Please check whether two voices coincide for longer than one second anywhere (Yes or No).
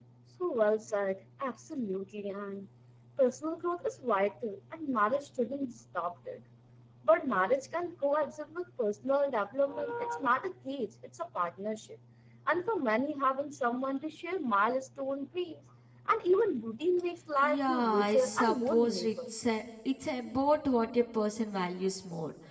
Yes